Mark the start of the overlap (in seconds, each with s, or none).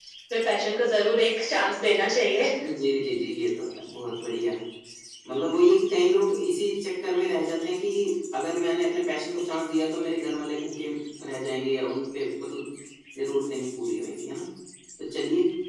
none